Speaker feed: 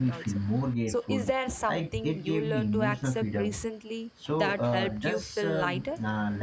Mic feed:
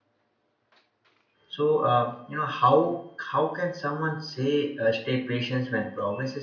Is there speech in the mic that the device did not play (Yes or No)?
Yes